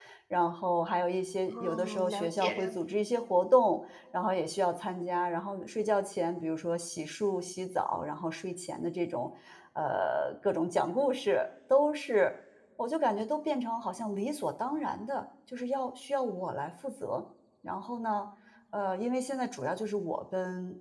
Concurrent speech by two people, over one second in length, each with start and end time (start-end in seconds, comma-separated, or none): 1.5-3.0